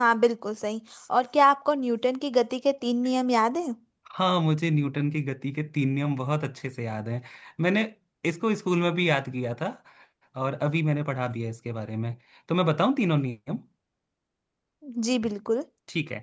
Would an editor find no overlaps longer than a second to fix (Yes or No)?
Yes